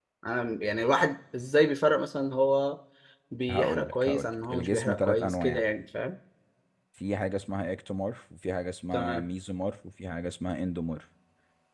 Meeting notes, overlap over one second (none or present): present